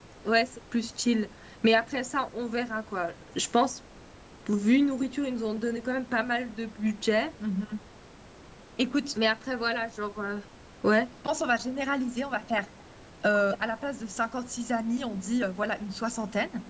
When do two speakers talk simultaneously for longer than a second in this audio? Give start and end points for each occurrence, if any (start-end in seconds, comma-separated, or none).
none